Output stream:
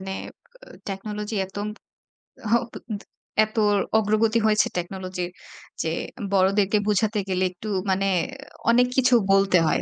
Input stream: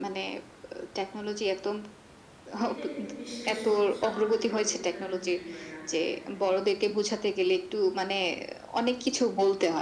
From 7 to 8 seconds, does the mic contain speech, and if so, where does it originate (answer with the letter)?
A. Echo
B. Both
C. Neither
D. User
A